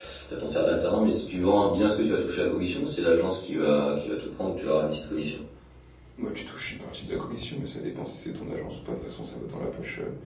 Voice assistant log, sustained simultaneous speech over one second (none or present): none